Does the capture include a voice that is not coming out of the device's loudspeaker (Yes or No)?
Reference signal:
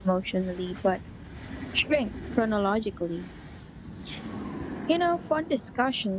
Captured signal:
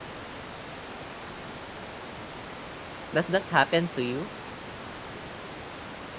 Yes